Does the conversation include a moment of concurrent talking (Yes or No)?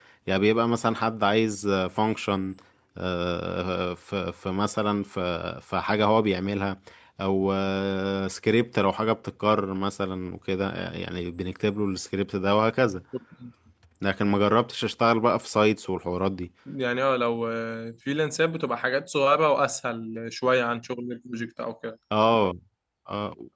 No